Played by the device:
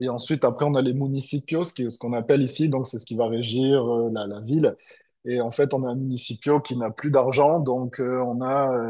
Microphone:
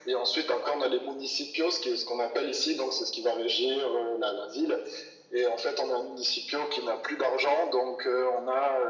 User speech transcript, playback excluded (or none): none